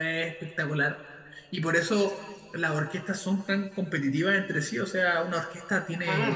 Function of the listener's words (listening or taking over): listening